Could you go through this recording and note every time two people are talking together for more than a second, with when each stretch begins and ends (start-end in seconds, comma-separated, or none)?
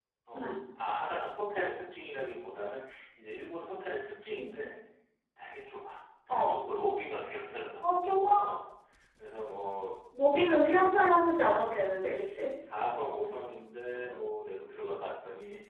none